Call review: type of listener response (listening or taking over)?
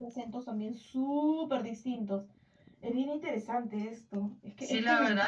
taking over